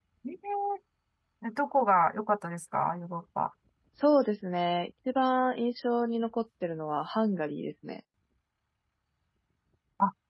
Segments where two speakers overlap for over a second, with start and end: none

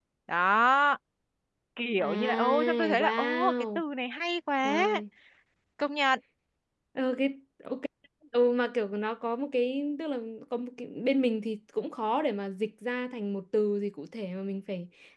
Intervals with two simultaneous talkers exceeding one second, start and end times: 2.0-3.8

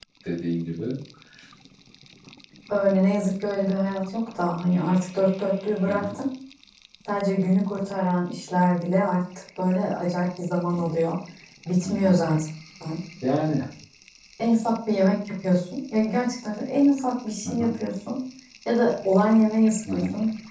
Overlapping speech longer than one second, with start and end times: none

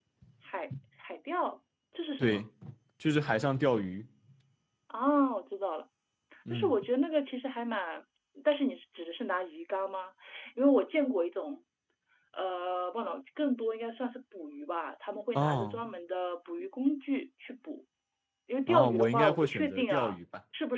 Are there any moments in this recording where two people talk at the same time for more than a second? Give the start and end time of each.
18.7-20.1

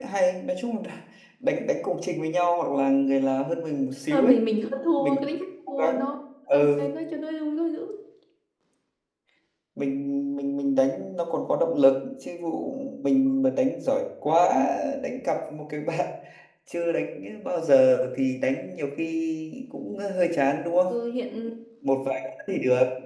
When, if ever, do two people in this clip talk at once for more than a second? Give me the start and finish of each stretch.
none

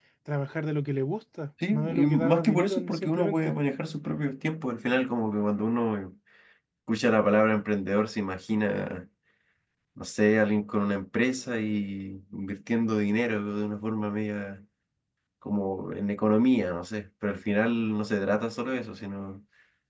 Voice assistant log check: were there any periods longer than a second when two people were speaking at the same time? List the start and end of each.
1.7-3.6

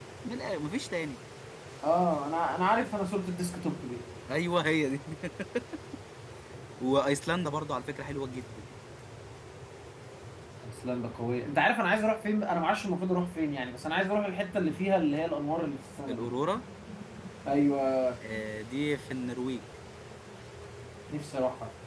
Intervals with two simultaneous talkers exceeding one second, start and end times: none

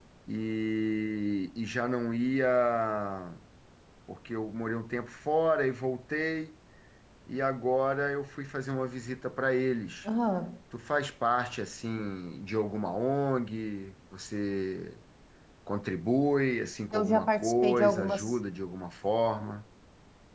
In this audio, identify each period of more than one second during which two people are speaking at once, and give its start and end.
16.9-18.3

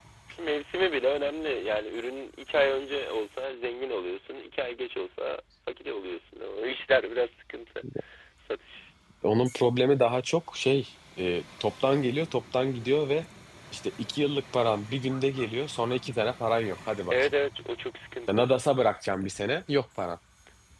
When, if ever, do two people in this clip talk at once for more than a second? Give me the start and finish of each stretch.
none

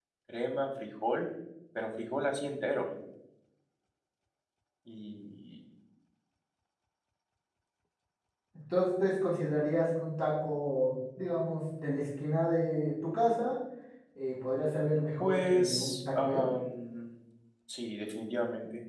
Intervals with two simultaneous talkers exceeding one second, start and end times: 15.2-16.5

